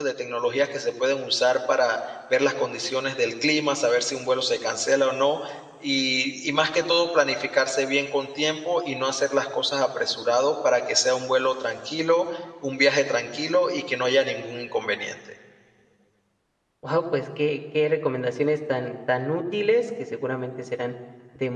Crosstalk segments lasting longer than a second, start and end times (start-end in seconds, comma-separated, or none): none